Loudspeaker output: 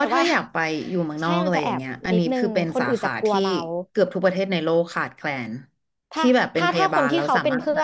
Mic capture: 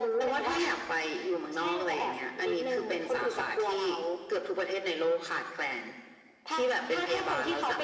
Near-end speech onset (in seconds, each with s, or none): none